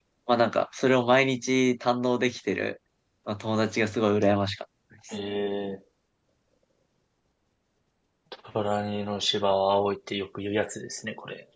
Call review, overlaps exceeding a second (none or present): none